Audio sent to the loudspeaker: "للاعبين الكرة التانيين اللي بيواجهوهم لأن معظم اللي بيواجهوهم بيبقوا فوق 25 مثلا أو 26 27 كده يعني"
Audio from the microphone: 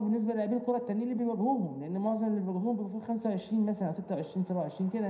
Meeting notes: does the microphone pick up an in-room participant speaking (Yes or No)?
No